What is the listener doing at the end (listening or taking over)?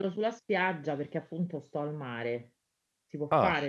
listening